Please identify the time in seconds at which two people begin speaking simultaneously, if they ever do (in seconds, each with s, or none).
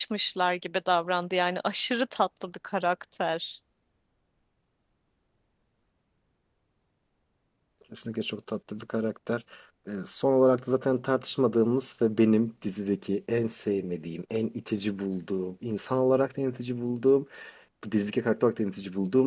none